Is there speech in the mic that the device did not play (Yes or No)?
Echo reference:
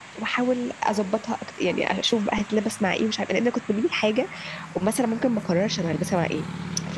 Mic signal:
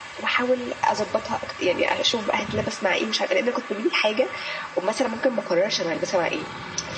No